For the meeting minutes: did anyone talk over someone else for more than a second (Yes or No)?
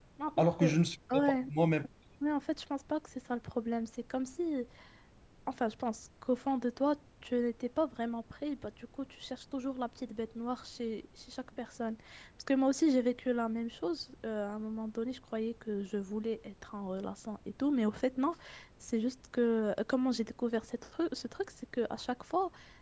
No